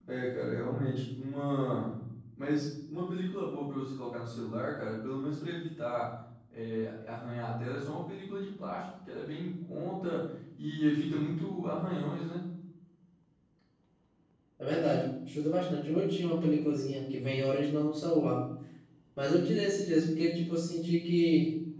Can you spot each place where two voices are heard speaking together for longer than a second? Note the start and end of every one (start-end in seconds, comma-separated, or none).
none